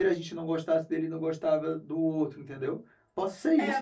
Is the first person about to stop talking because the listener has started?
Yes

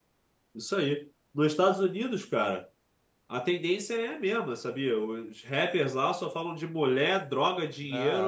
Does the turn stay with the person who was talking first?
No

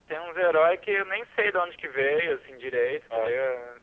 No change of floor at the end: Yes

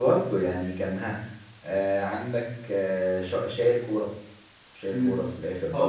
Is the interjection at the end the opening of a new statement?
Yes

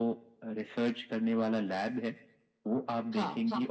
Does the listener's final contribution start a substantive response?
No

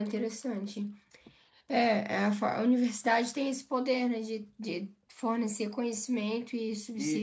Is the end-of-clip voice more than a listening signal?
Yes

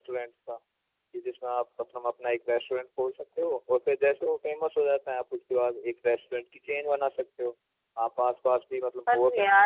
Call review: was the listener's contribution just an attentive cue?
No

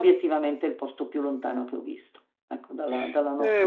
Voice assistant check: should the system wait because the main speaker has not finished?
No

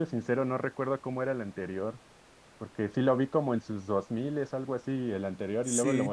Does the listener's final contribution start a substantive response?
No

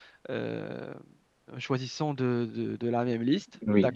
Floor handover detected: Yes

